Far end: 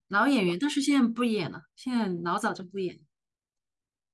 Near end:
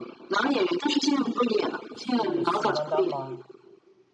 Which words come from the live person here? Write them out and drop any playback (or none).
是宋丹丹吗？